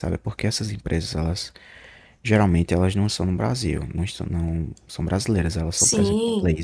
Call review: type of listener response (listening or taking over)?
listening